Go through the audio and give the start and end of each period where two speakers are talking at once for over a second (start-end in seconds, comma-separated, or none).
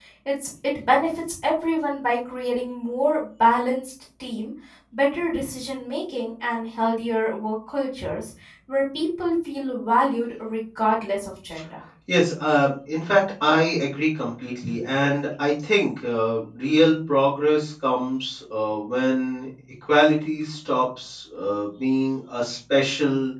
none